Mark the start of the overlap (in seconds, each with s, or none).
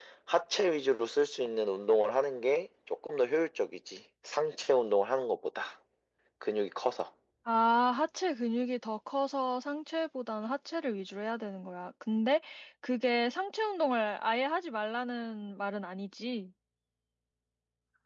none